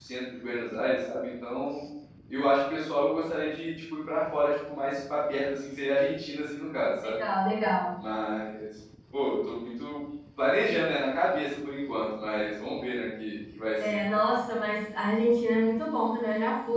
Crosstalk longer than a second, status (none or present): none